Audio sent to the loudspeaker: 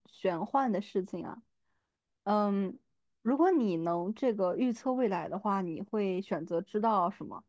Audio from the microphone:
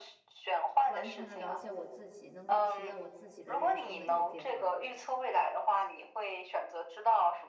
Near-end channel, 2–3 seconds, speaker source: both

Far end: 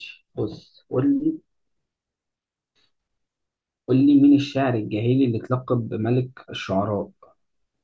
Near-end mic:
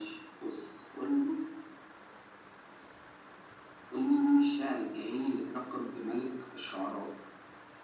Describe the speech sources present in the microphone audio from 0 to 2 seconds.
echo only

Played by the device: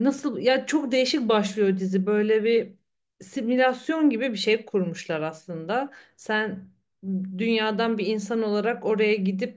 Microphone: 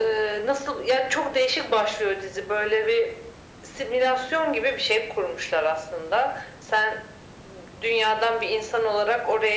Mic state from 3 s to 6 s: echo only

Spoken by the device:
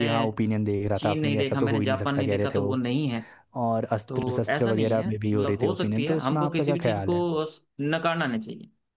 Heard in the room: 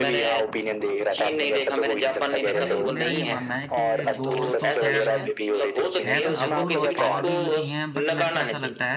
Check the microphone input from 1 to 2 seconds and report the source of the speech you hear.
echo only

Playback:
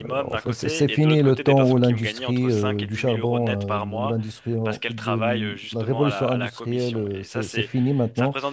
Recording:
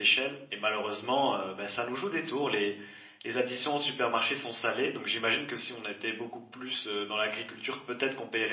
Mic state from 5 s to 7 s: user only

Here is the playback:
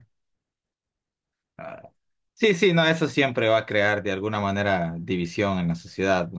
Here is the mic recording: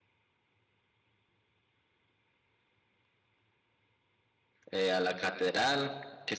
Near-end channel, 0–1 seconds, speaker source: neither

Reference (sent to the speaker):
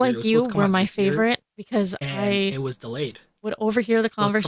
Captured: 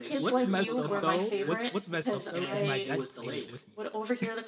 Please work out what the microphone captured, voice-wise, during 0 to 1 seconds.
both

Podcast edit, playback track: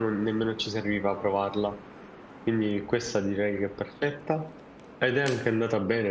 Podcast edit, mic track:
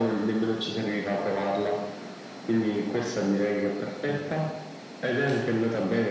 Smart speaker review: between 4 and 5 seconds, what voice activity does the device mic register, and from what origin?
both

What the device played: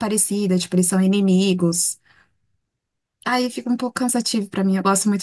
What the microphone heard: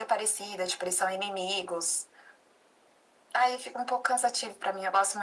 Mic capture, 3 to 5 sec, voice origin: echo only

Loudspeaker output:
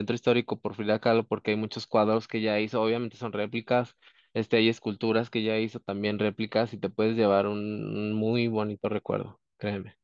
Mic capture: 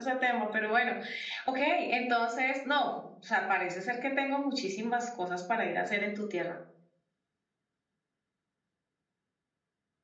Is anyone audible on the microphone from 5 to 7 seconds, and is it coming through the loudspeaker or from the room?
user only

